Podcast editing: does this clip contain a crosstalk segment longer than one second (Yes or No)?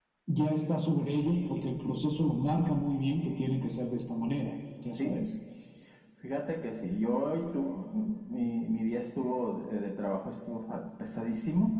No